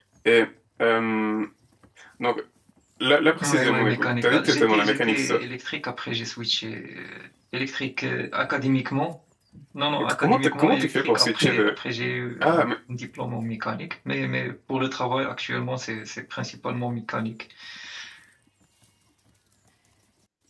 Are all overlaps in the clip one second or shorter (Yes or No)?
No